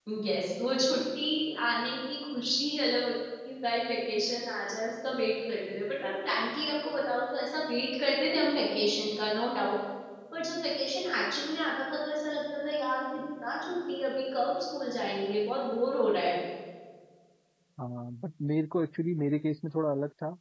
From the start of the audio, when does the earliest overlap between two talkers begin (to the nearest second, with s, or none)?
none